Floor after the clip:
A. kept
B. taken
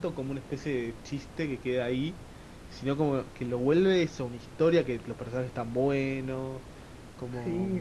B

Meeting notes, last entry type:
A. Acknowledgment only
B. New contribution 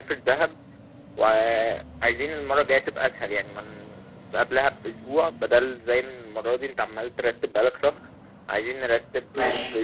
B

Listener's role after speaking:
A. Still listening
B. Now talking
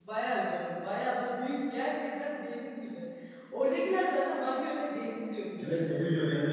B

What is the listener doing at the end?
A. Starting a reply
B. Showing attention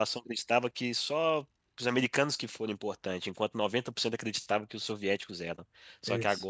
B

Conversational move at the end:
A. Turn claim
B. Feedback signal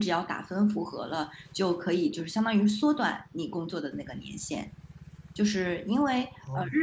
B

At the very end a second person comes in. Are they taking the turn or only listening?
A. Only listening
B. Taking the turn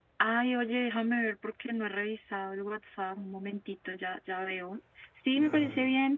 A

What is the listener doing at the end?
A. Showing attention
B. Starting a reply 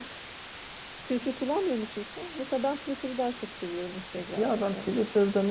B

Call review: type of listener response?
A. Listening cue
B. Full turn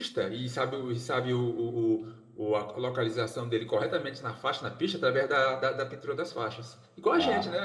B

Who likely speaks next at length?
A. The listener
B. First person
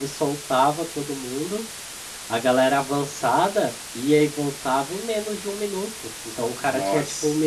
B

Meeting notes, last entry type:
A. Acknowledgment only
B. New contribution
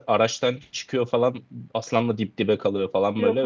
A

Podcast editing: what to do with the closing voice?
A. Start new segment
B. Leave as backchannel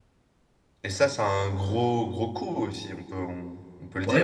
A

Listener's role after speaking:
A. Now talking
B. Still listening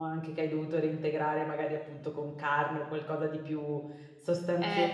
B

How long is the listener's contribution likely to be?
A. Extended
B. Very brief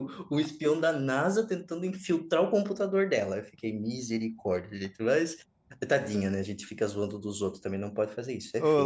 A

